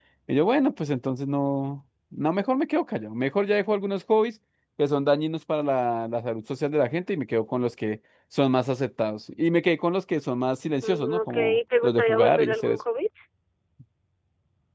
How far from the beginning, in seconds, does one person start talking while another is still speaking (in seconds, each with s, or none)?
10.8 s